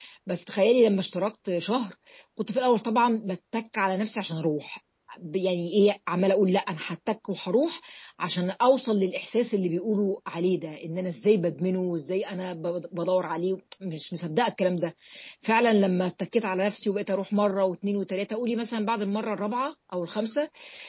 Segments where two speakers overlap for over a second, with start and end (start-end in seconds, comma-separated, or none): none